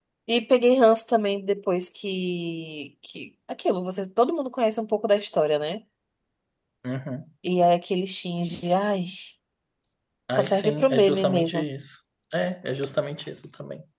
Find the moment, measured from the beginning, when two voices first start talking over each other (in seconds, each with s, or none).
10.3 s